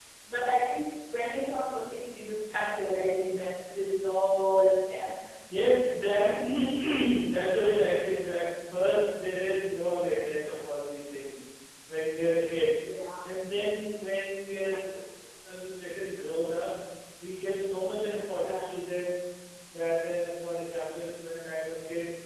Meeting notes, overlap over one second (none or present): none